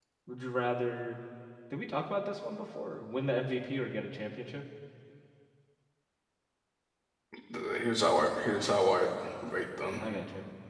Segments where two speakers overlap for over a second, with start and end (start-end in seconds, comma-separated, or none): none